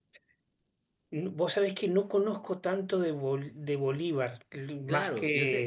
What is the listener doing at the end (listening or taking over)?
taking over